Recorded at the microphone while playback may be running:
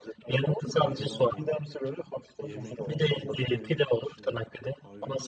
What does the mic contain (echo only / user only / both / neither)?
both